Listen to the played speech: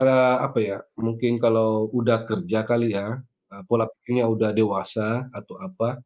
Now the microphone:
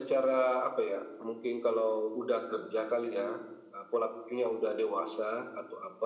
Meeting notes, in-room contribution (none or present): none